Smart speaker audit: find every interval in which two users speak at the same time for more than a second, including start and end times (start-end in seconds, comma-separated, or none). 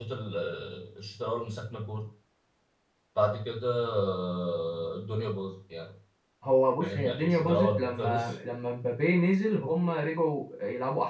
6.8-8.3